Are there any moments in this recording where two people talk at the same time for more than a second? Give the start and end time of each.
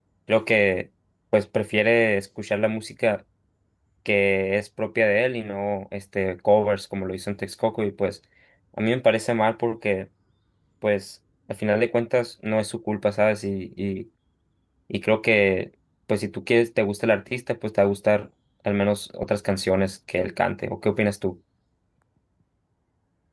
none

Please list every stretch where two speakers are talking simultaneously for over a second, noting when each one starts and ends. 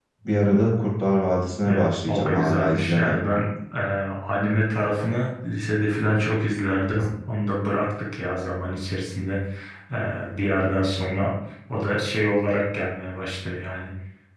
1.6-3.2

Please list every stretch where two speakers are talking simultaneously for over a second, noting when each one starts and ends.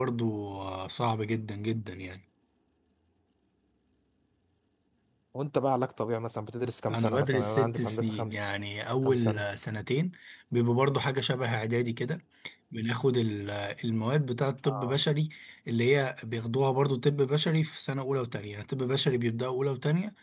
6.9-8.4

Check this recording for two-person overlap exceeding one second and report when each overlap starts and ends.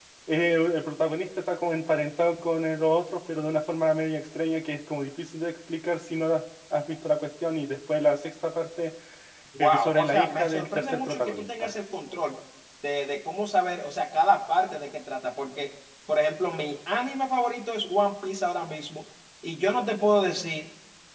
9.6-11.7

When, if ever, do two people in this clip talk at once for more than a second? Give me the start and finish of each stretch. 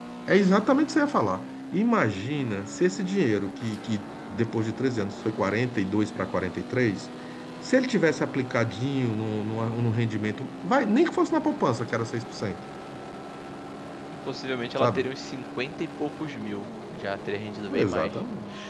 none

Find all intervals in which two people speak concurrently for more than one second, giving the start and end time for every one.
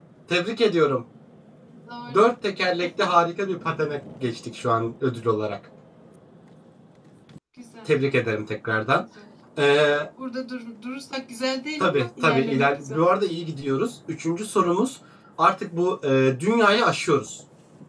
11.8-13.0

